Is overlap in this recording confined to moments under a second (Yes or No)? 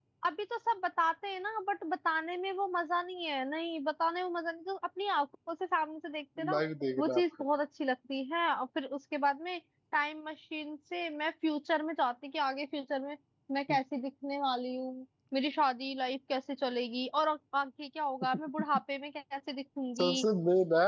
Yes